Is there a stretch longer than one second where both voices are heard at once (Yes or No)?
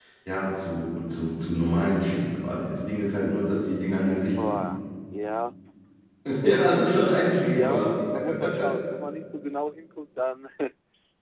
No